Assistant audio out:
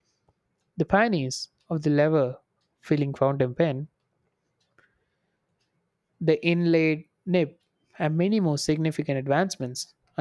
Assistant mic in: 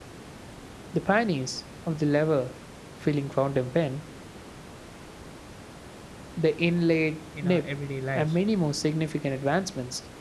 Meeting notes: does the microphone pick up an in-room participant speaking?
Yes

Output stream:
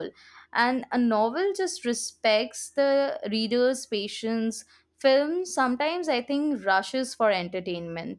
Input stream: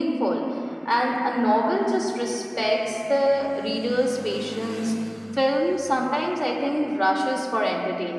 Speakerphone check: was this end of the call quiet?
Yes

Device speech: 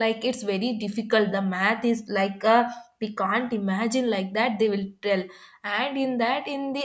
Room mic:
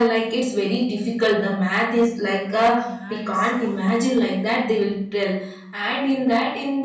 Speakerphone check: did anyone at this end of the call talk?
Yes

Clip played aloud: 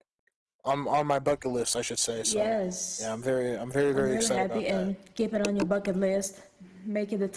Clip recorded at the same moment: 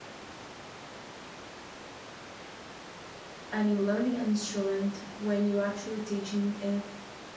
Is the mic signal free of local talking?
No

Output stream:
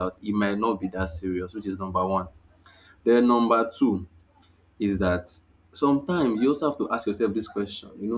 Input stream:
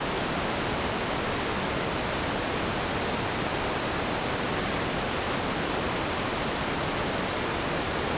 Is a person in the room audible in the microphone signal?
No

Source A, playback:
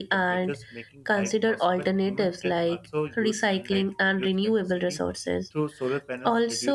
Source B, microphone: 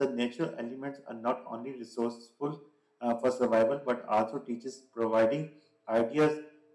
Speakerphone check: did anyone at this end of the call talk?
Yes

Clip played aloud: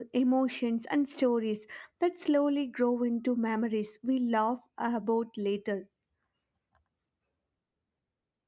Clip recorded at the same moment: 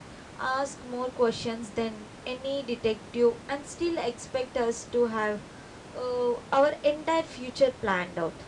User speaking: Yes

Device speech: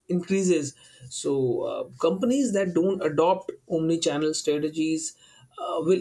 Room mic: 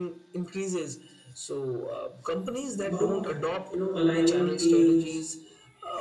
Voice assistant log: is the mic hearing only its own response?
No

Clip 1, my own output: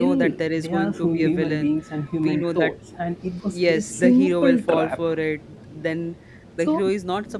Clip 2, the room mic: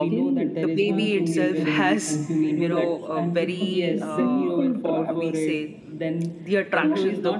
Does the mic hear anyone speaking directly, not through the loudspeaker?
Yes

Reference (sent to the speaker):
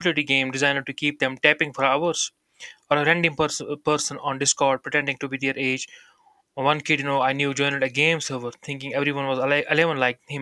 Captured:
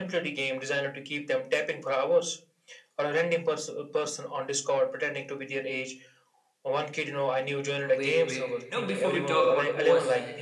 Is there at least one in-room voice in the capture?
Yes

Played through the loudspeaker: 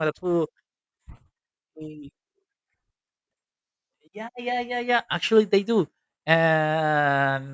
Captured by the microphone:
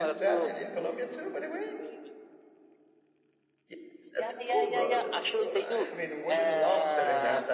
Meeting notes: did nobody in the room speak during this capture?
No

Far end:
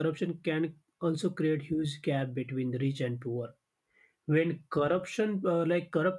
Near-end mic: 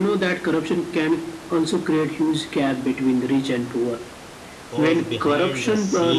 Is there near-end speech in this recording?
Yes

